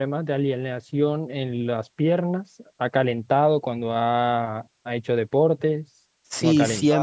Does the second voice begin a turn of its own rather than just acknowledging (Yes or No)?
Yes